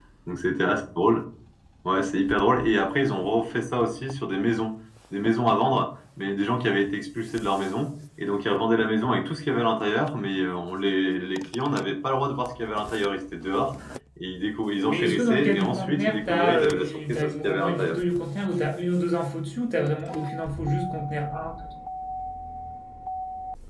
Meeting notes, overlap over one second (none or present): present